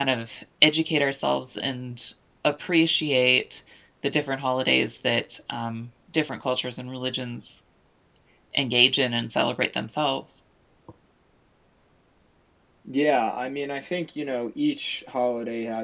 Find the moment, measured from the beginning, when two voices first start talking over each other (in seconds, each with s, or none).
none